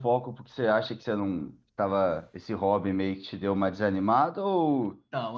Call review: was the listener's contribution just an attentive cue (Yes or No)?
No